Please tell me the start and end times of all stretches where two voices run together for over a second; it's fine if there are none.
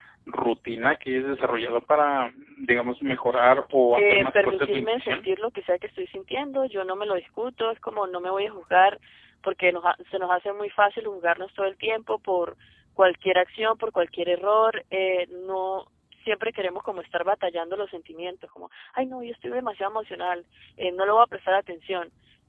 4.0-5.2

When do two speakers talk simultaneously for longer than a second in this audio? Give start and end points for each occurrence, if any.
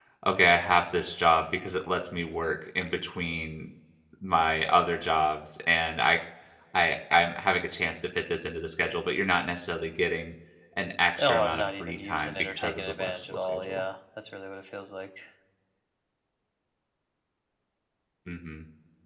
11.2-13.8

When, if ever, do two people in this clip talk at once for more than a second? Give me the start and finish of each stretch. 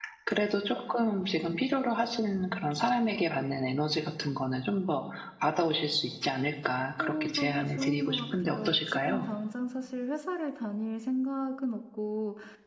7.0-9.2

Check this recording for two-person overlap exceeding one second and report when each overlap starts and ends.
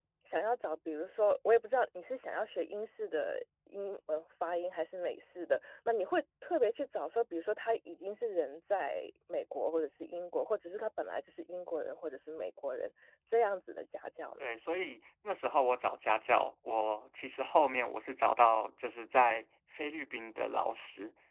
none

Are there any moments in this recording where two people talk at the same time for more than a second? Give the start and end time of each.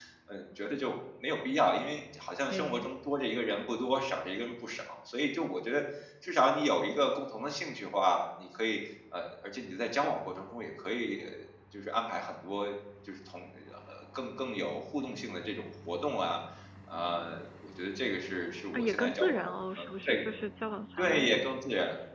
18.7-20.1

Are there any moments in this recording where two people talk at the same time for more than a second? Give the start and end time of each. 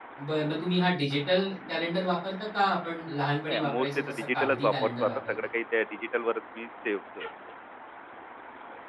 3.5-5.3

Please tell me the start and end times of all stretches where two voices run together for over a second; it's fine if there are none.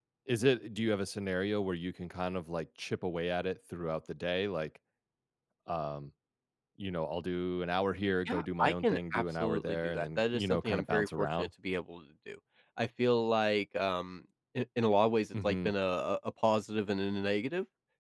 8.3-11.5

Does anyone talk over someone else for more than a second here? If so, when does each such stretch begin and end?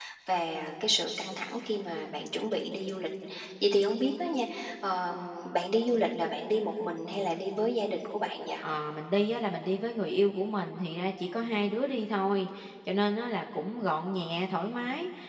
none

